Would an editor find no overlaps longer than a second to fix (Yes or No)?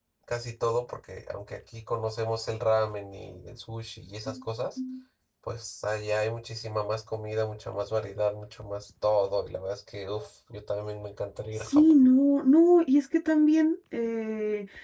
Yes